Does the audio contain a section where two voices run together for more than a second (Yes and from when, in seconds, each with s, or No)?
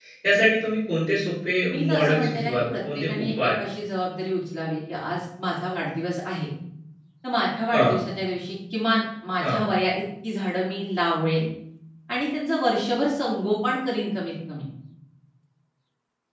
Yes, from 1.7 s